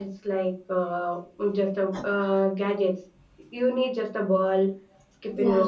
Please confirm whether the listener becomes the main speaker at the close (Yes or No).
No